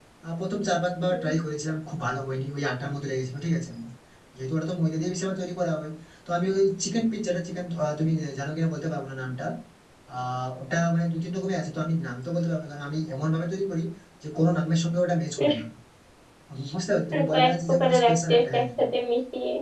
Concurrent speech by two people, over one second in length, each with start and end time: 17.1-18.6

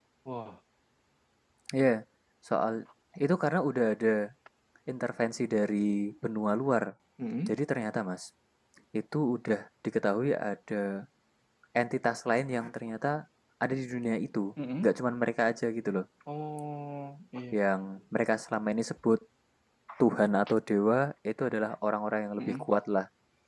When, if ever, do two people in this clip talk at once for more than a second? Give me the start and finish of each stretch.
none

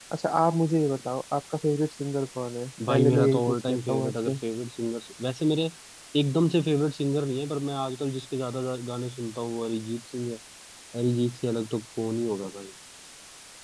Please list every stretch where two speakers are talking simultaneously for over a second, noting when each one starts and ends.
2.9-4.4

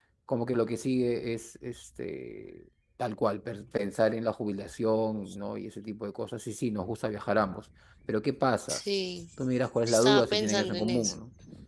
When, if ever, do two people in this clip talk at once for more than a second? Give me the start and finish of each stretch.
9.9-11.1

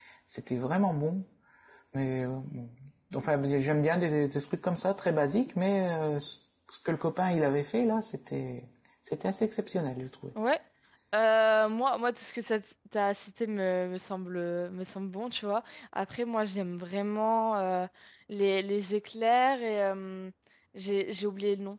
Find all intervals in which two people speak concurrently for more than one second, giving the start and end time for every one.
none

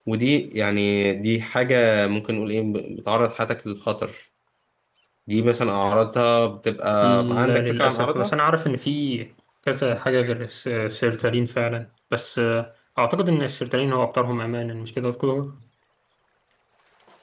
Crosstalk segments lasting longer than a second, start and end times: 7.0-8.3

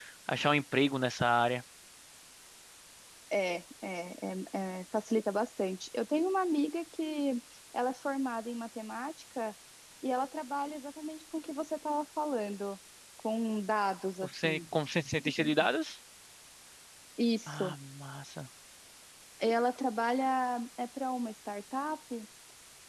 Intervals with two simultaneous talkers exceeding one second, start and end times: none

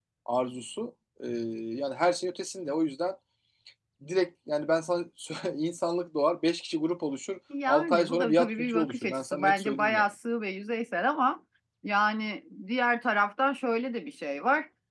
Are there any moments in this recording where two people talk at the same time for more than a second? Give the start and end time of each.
7.7-9.9

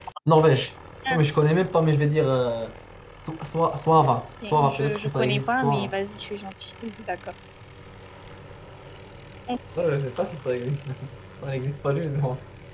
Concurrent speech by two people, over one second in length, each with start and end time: 4.5-5.9

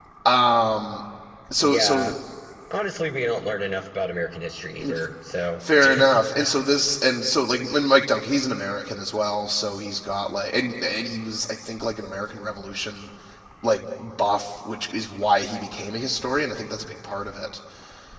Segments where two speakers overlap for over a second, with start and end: none

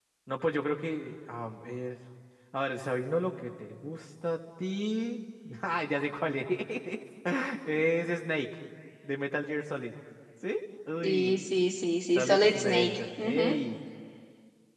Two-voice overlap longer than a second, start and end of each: 12.1-13.5

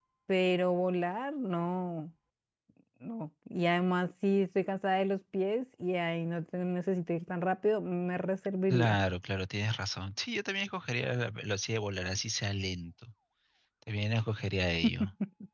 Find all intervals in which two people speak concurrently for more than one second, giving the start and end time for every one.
none

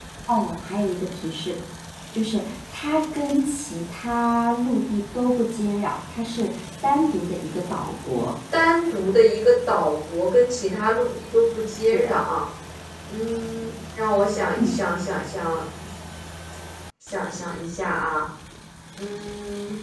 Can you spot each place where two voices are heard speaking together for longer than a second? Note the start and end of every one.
none

